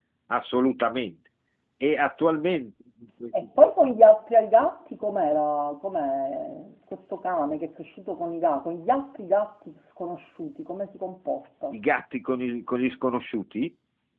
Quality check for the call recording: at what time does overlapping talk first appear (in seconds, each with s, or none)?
none